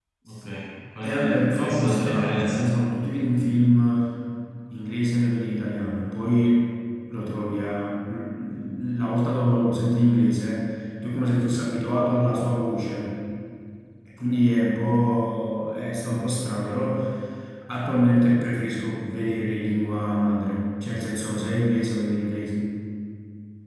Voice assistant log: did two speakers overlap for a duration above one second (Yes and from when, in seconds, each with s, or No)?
Yes, from 1.0 s